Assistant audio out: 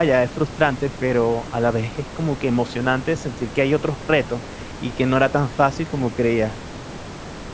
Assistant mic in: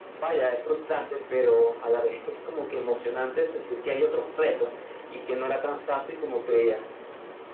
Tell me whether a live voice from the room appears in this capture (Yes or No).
No